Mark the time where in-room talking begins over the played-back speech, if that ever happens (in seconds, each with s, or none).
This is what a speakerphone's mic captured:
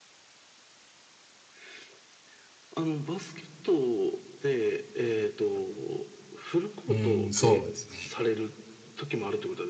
6.9 s